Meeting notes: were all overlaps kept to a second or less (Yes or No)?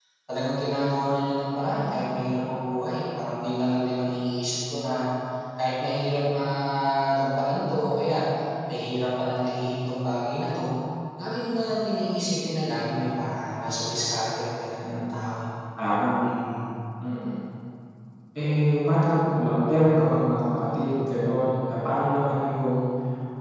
Yes